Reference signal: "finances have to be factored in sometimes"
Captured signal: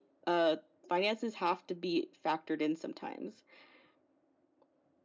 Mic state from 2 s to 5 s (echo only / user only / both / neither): echo only